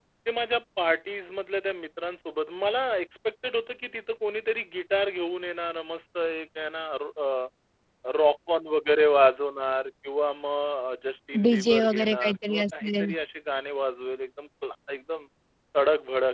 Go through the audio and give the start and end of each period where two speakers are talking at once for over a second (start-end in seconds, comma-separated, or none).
11.4-13.1